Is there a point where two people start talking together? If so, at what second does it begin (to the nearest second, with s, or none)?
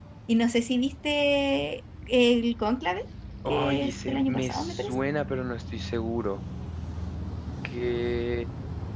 3 s